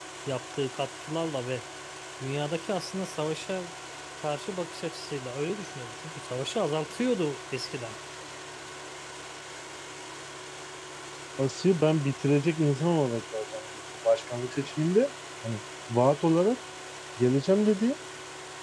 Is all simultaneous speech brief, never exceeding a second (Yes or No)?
Yes